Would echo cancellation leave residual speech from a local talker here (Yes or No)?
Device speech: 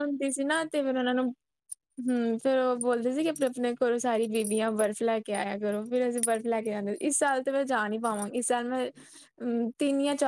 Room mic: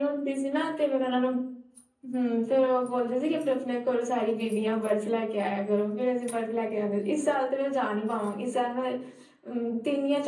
No